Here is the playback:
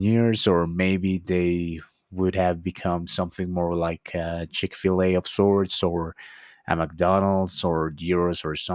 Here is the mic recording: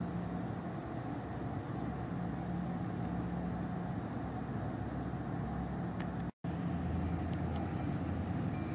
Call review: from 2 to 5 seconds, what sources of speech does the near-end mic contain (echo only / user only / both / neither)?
neither